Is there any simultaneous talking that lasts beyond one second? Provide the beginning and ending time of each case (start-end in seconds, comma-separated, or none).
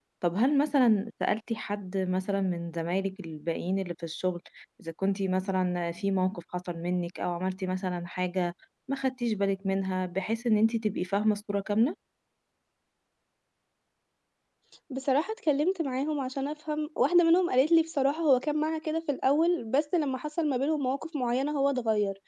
none